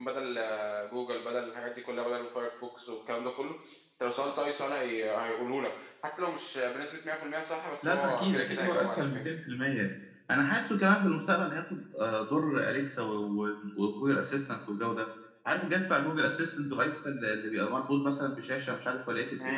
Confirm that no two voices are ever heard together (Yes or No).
No